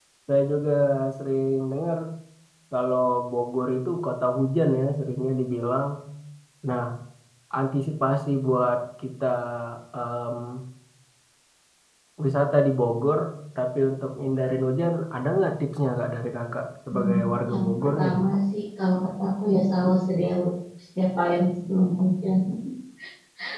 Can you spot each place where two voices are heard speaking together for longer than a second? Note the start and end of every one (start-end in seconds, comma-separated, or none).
16.9-18.1